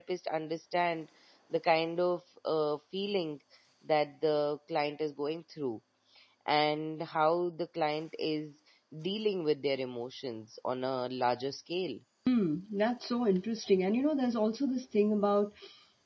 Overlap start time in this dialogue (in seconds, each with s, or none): none